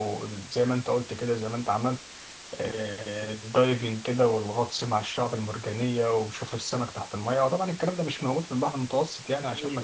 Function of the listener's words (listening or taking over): listening